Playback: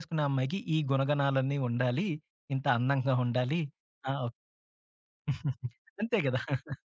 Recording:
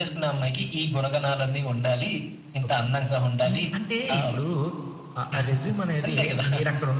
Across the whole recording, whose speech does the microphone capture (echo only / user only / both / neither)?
both